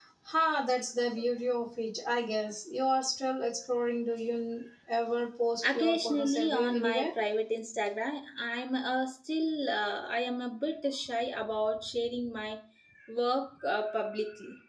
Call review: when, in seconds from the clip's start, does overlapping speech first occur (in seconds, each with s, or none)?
5.6 s